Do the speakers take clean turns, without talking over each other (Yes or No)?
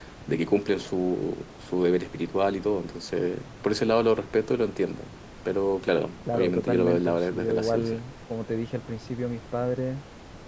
No